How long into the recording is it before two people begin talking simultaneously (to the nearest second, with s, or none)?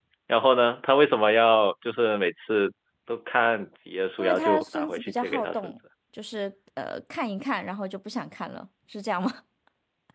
4 s